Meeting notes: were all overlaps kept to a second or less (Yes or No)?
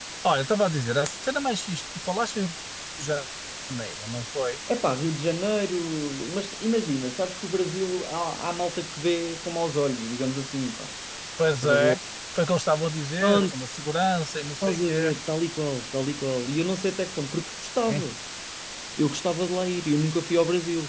Yes